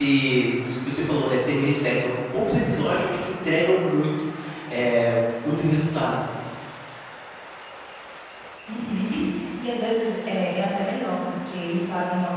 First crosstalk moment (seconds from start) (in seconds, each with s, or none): none